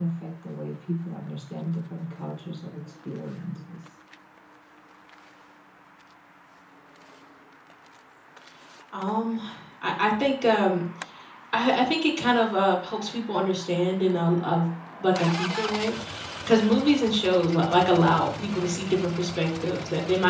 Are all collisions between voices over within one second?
Yes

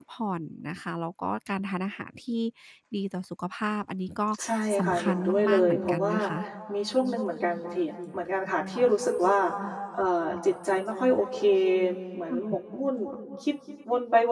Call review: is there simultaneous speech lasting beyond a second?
Yes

